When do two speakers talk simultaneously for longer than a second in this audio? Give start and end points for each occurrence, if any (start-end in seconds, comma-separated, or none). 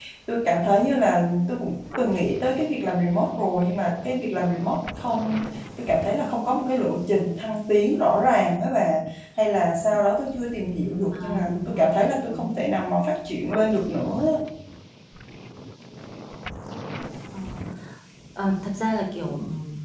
11.1-12.5